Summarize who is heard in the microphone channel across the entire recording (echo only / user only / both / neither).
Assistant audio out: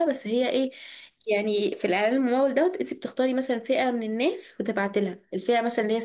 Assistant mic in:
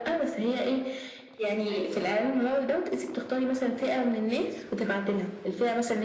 both